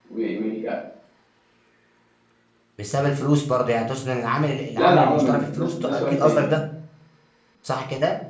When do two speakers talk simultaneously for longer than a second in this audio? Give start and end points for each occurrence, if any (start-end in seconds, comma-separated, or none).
4.8-6.5